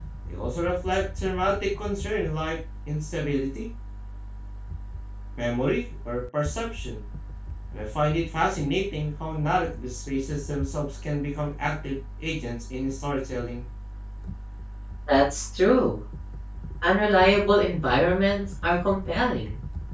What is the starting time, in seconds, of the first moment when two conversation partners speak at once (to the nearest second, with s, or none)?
none